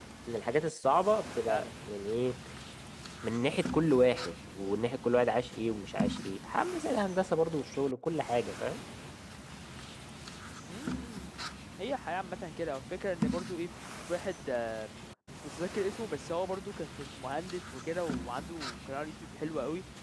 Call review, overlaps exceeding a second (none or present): none